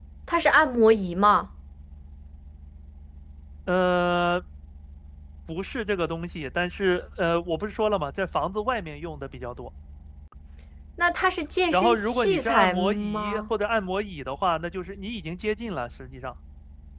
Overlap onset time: 11.7 s

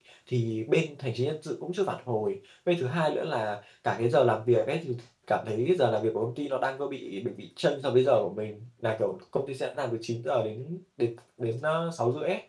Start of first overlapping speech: none

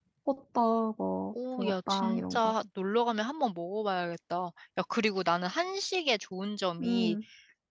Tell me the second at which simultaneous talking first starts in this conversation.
1.3 s

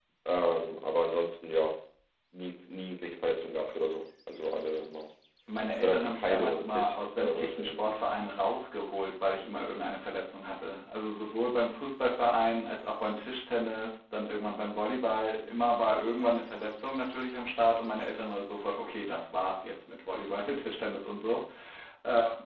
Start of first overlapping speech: 5.8 s

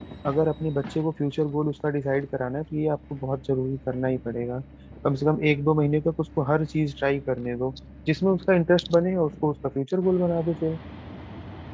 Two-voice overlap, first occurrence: none

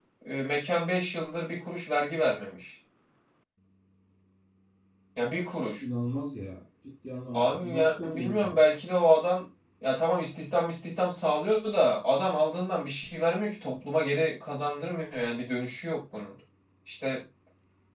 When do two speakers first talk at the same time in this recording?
7.3 s

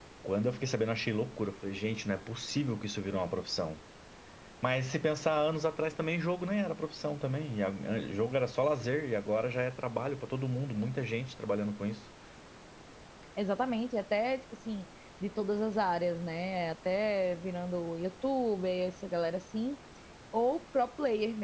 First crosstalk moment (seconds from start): none

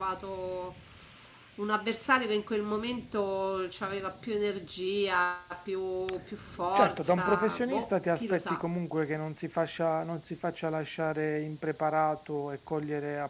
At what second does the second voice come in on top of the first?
6.7 s

